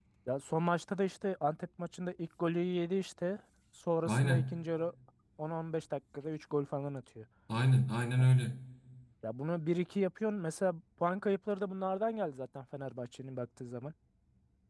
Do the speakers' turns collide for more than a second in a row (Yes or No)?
No